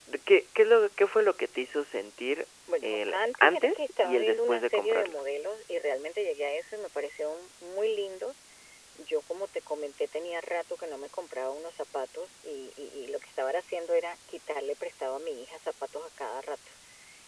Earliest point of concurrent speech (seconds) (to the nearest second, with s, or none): 3 s